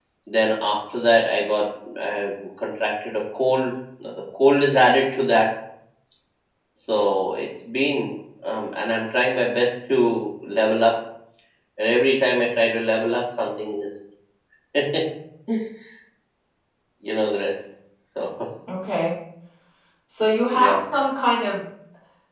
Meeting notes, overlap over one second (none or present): none